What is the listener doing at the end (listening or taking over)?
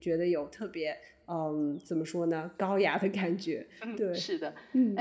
taking over